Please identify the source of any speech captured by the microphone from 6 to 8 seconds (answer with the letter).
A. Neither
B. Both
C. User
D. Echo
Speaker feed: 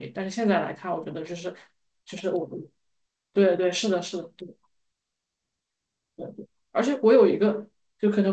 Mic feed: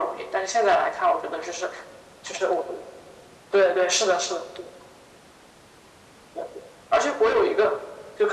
D